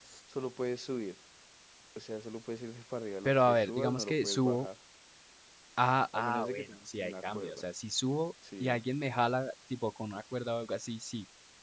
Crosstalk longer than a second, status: present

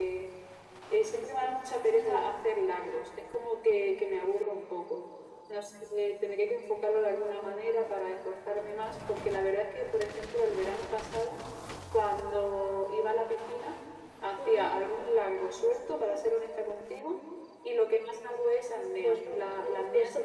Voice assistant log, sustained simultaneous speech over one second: present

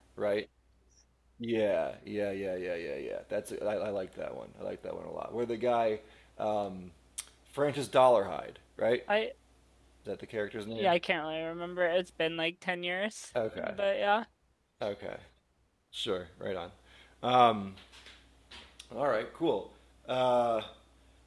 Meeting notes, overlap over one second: none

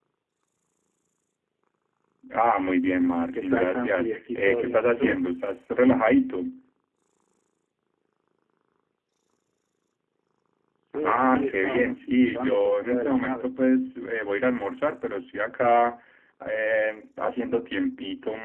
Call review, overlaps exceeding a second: present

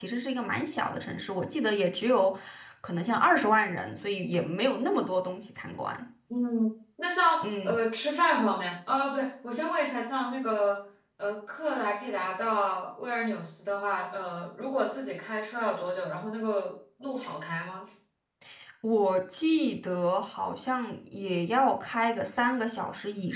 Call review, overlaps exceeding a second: none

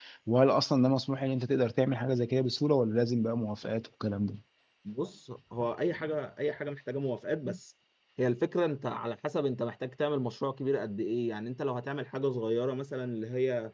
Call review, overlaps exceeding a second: none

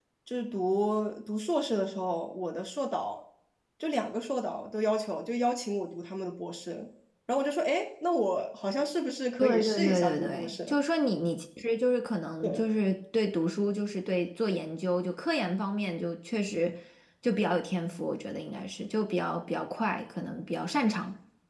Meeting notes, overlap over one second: present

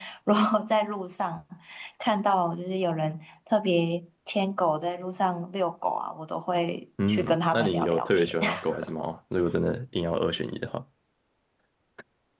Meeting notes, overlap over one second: present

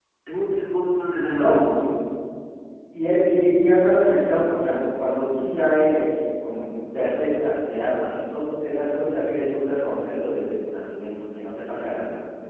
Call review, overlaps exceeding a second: none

